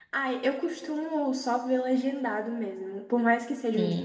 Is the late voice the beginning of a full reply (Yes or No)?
No